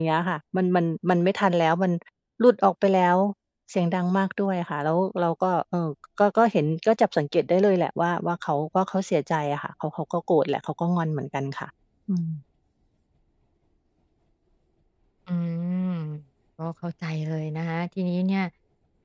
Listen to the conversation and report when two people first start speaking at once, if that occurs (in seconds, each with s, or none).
none